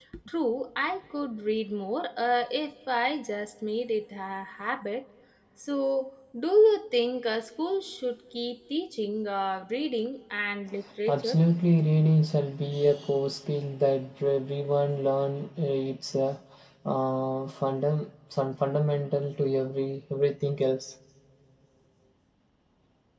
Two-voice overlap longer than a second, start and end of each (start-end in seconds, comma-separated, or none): none